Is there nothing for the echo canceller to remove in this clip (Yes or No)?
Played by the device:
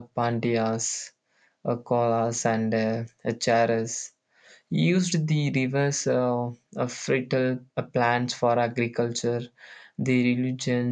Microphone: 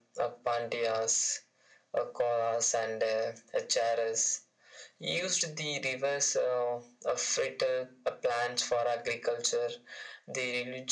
No